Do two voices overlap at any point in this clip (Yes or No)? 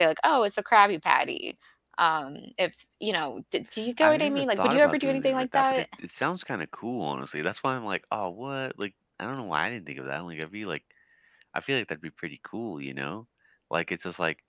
Yes